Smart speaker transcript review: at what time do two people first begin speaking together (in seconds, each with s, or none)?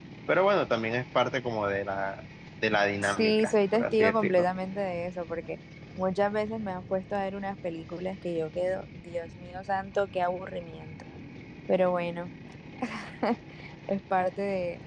3.0 s